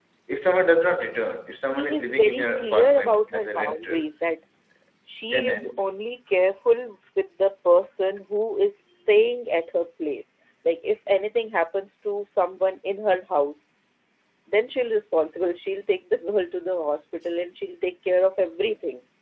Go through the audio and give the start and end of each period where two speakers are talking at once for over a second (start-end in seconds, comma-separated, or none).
1.7-4.0